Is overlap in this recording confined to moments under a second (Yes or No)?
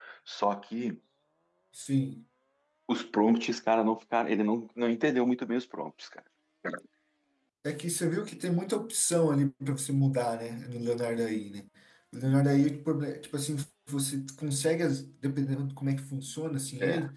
Yes